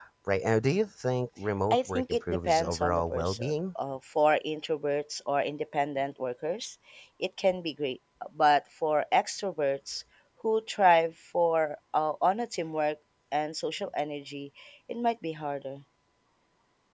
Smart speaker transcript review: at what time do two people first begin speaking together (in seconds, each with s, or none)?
1.7 s